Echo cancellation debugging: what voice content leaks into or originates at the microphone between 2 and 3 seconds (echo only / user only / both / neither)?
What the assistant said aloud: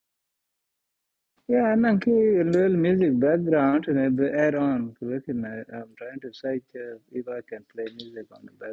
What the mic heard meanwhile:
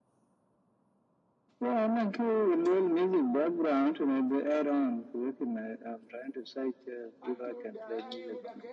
echo only